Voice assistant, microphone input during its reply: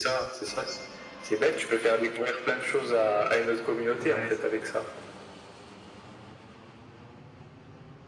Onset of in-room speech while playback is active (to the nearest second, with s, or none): 4 s